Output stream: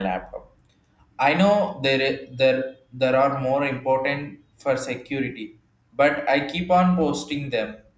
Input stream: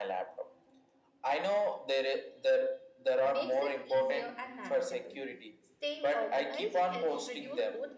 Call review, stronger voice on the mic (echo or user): echo